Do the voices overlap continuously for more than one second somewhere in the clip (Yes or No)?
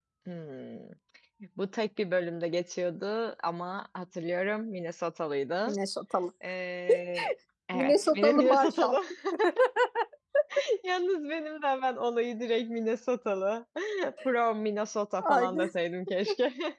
Yes